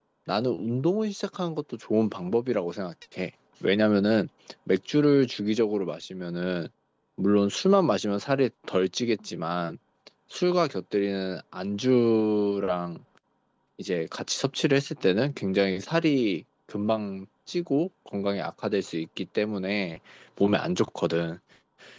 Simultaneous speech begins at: none

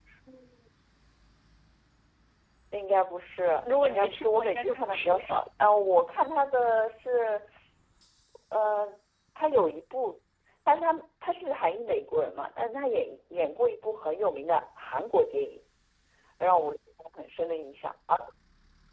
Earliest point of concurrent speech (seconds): 3.6 s

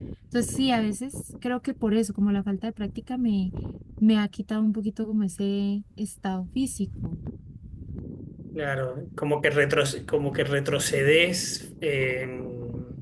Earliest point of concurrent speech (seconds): none

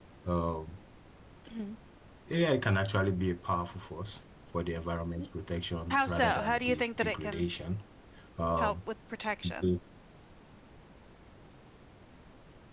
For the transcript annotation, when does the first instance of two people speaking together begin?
5.9 s

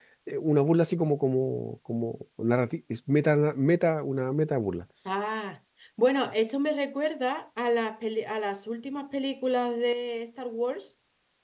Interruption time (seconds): none

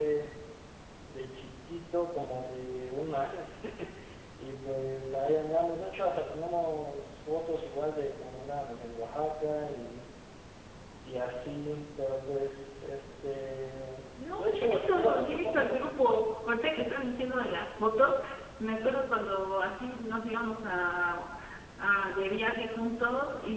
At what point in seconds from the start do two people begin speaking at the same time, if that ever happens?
14.2 s

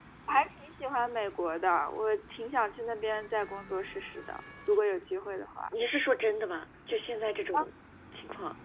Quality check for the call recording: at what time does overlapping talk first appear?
none

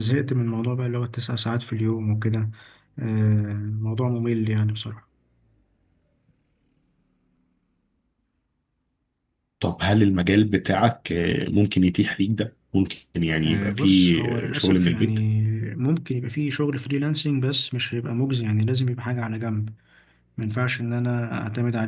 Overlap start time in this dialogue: 13.4 s

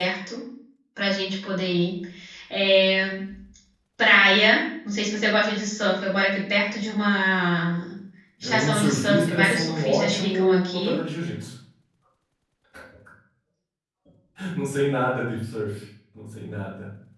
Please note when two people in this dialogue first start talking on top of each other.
8.4 s

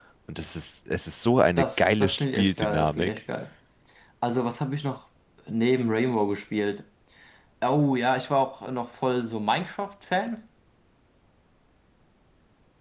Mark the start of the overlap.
1.6 s

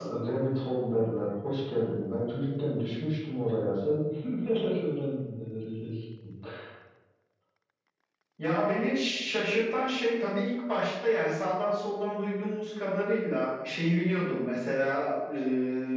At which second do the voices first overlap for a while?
none

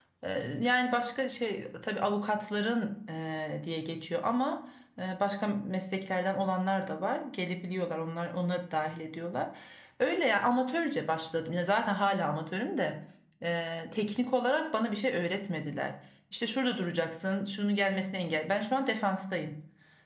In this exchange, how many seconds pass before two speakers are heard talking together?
none

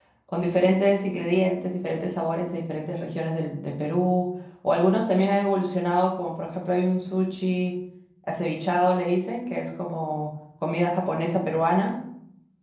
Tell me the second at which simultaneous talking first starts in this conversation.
none

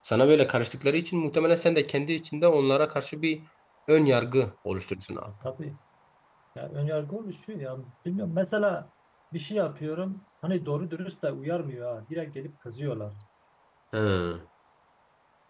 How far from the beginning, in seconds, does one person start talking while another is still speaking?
none

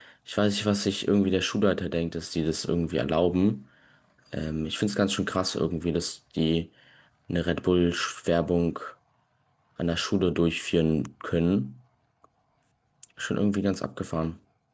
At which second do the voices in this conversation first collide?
none

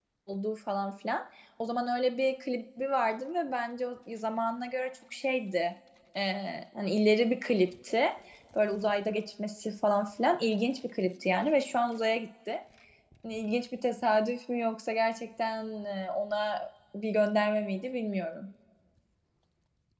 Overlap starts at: none

